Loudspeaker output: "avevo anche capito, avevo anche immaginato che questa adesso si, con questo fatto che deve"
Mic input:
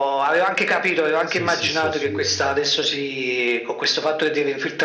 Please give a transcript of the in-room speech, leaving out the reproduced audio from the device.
sì, sì, sì, assolutamente.

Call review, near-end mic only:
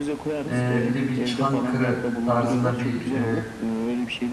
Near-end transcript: e, bir de bir Çankırı tarzında bir e,

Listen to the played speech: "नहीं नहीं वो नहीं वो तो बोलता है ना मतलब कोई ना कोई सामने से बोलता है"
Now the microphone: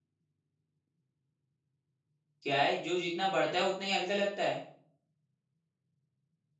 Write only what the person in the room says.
क्या है जो जितना बढ़ता है उतना ही हल्का लगता है

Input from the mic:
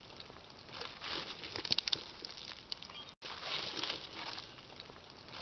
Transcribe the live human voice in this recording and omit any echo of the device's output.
none

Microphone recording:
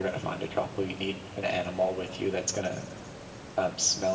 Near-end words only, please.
none

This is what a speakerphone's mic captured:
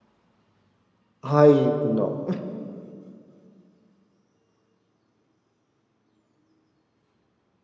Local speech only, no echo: Ay, no.

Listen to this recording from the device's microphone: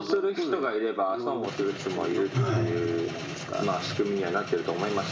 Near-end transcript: はい。

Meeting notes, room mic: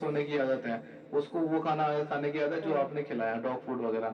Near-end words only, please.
हम्म

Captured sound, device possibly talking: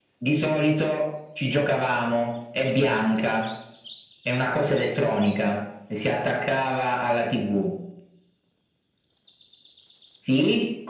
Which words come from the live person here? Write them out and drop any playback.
none

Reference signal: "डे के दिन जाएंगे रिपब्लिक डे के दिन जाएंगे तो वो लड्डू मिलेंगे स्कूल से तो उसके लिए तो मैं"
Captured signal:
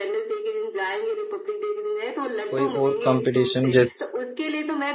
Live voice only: कोई और कंपटीशन जैसे

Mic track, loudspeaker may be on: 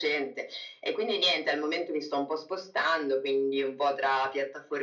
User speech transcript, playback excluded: none

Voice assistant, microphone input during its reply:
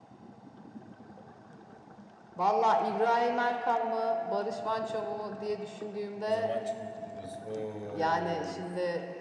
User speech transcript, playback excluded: O zaman Çelik diyoruz. Of

